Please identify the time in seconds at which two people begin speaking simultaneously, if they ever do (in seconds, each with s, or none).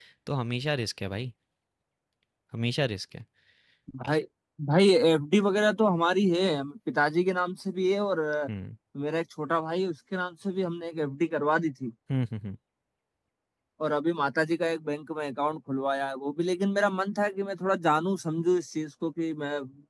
none